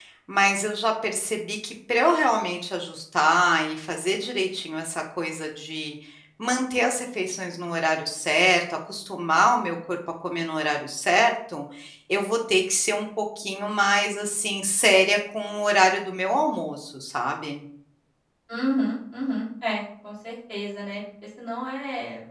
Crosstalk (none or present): none